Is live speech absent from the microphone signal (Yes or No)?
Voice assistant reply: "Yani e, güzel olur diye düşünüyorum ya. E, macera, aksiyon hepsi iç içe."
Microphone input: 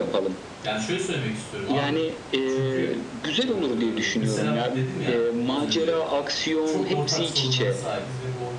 No